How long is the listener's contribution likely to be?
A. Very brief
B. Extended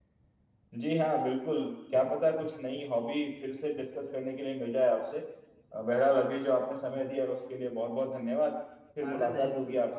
B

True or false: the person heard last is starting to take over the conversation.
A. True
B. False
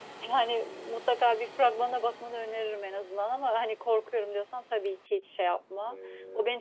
B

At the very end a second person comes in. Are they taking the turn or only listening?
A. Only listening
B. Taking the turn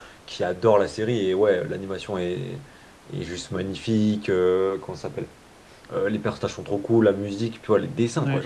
A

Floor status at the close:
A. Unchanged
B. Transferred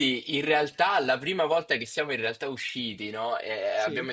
A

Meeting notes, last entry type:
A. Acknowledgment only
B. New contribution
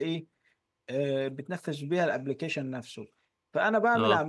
A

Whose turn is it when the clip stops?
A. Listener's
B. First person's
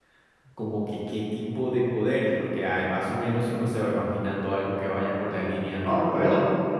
A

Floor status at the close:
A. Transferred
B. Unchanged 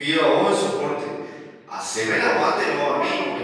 B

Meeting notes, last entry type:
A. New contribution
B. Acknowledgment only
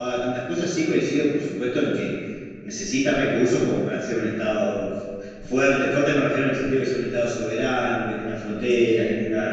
B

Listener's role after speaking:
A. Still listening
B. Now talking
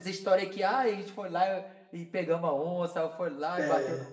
A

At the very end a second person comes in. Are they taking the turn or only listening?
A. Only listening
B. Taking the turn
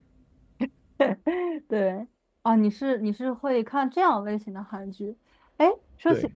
A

